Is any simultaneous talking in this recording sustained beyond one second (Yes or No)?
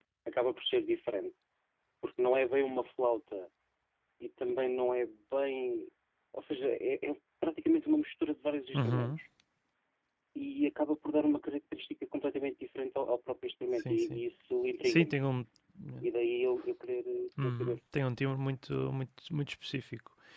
No